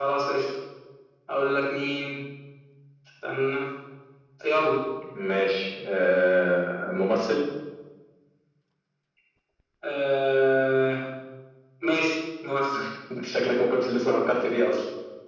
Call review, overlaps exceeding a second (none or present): none